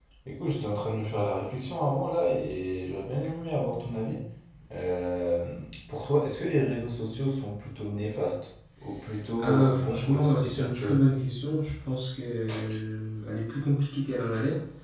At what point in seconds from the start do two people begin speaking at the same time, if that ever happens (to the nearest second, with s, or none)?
9 s